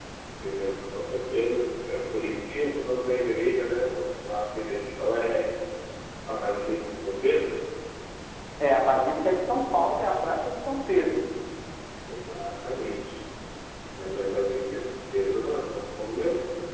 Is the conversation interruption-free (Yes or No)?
Yes